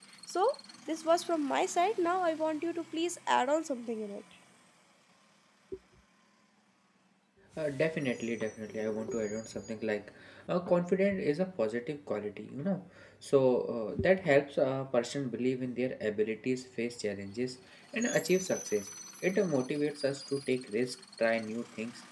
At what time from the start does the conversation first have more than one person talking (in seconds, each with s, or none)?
none